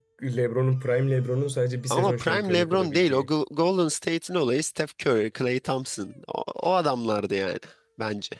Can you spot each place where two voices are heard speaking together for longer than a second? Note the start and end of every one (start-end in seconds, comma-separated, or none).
1.9-3.3